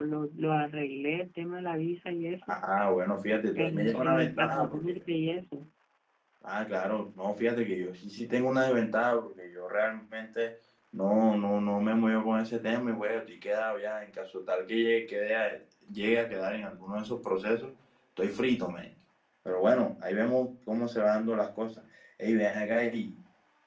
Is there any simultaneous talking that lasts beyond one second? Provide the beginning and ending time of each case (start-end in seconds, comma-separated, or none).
3.5-5.0